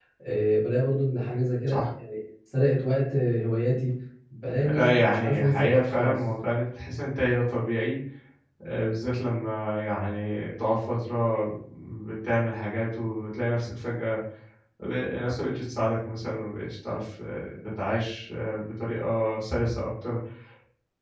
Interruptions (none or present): present